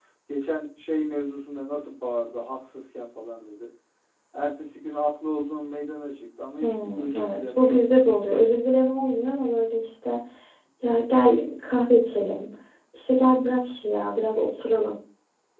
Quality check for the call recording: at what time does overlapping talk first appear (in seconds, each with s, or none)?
6.6 s